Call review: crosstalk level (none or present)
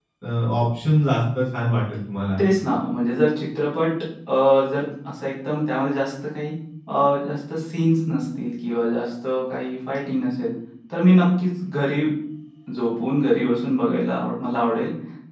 none